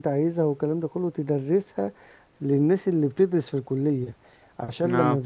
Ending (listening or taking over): listening